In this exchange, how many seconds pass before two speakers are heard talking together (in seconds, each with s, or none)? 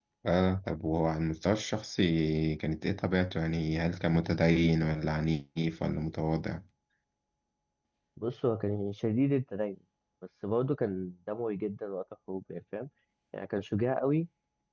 none